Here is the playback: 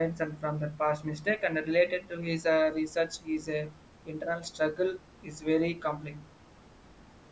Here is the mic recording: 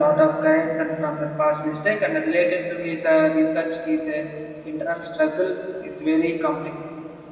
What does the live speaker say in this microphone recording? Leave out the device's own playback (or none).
none